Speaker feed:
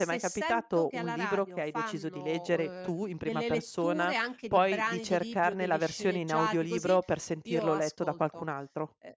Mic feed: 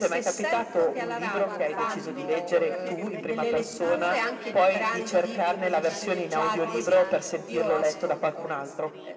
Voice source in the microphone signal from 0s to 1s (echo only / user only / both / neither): echo only